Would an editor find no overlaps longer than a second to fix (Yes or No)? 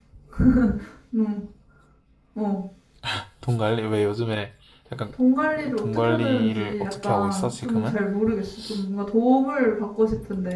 No